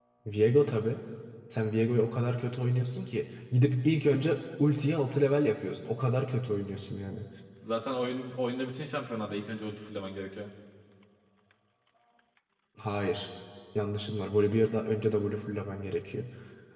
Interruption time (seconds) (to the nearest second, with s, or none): none